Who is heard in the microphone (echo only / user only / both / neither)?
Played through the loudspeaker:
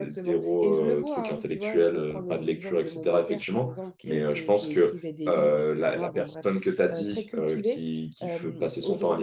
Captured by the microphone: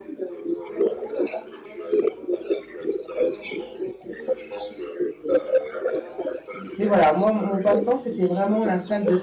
both